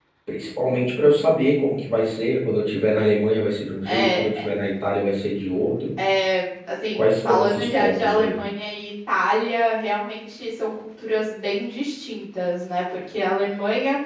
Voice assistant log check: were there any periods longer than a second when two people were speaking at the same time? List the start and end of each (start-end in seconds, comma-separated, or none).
7.0-8.3